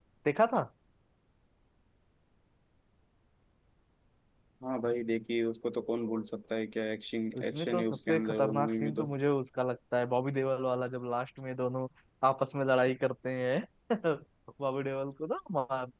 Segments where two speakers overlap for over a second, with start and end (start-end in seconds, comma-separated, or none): 7.4-9.0